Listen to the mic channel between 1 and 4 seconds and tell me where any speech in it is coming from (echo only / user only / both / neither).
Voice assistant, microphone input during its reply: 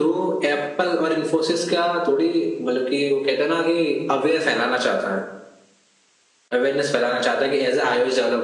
echo only